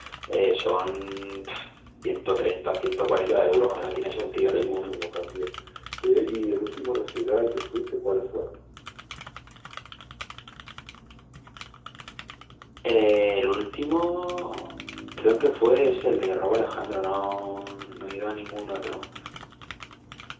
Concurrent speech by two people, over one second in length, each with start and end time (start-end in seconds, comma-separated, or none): 3.2-5.0